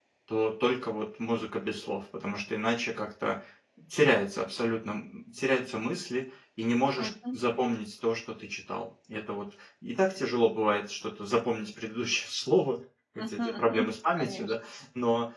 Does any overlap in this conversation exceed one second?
Yes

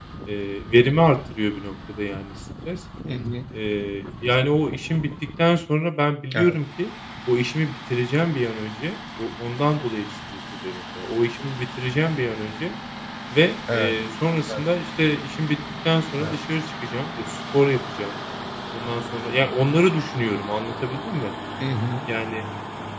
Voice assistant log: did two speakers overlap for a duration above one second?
No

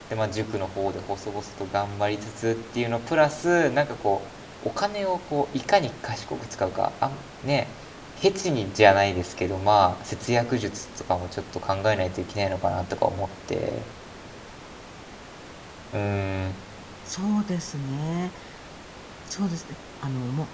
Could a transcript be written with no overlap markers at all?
Yes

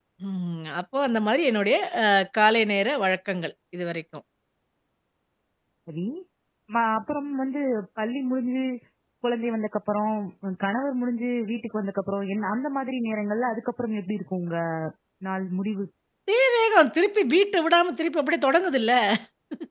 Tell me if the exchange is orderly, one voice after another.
Yes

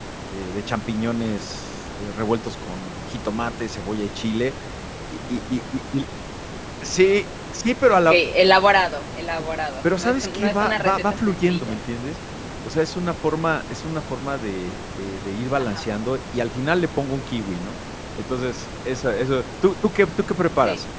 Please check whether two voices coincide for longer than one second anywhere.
Yes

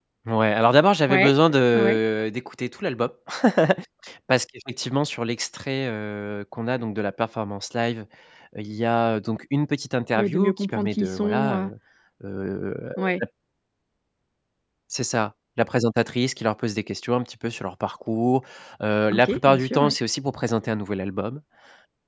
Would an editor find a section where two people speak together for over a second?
Yes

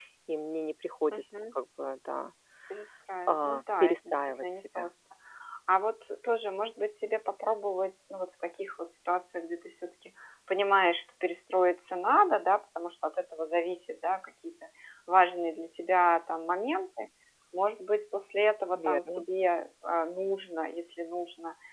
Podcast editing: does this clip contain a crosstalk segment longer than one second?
Yes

